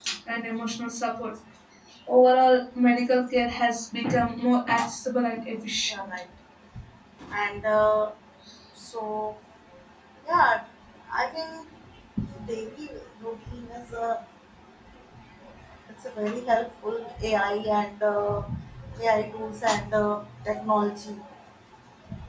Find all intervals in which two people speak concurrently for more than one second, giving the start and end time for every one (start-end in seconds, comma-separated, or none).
none